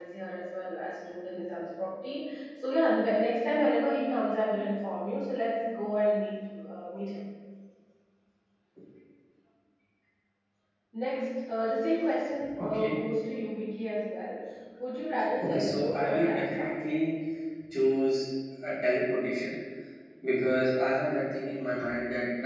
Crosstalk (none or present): present